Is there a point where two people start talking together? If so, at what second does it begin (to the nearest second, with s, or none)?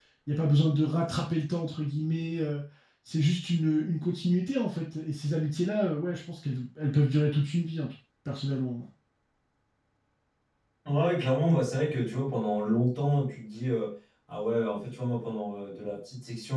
none